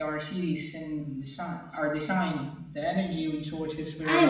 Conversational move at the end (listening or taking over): taking over